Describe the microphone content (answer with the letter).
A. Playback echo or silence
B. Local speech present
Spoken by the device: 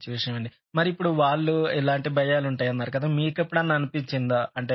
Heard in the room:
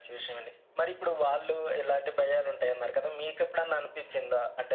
A